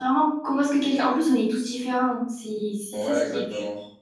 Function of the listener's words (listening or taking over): taking over